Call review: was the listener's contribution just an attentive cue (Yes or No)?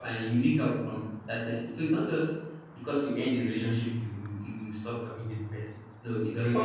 No